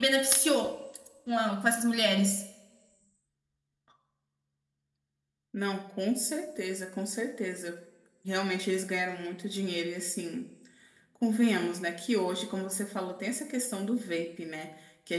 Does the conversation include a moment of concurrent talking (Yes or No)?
No